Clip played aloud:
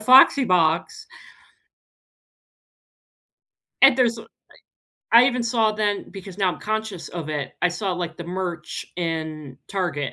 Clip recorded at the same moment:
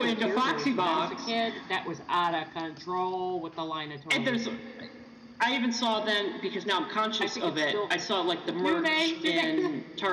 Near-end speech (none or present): present